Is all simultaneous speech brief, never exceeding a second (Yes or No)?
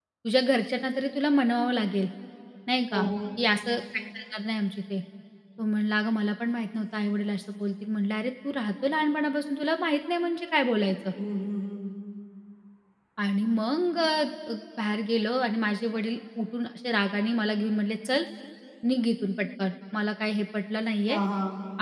Yes